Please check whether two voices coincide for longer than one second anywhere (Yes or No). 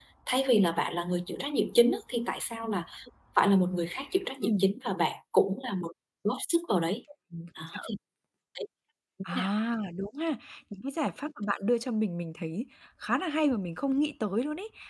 No